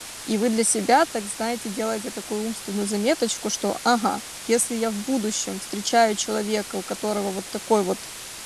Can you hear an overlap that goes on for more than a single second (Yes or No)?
No